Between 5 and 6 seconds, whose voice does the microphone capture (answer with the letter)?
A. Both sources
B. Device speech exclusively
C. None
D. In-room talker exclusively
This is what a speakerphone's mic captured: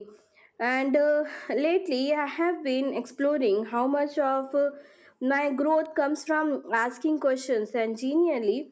B